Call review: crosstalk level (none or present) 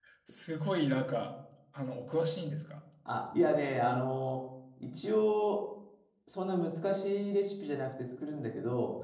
none